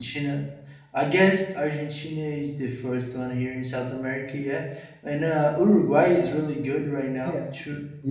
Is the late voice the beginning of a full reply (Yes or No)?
Yes